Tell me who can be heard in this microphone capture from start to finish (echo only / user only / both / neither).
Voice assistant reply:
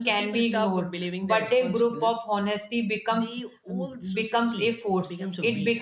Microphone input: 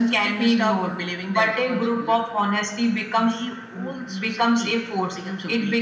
echo only